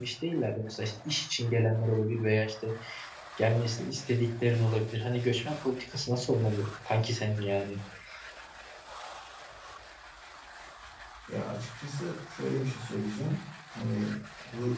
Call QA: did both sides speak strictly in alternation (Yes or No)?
Yes